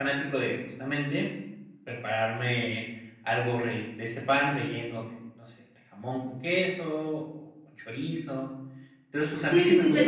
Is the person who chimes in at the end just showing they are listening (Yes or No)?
No